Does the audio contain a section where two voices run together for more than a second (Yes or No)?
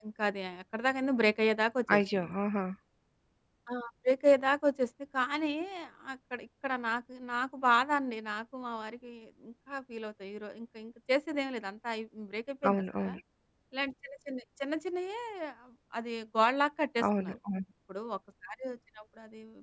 No